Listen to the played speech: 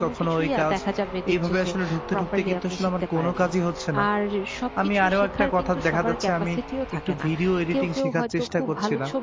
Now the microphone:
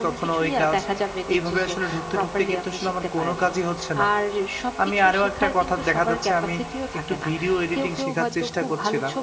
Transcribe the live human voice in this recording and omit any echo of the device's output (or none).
none